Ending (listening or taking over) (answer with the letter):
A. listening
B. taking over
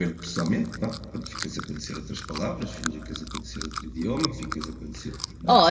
B